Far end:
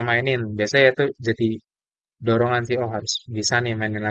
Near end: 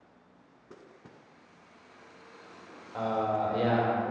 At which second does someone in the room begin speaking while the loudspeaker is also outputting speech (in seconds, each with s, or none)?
3.0 s